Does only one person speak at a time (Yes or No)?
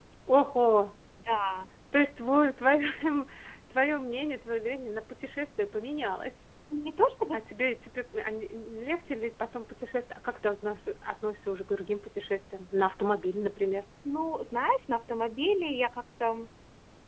Yes